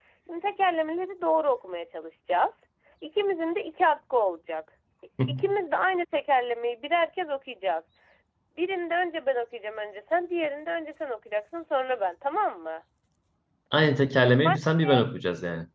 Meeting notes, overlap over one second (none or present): none